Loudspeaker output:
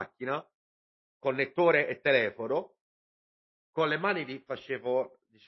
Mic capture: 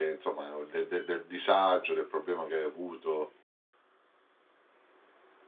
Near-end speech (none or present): present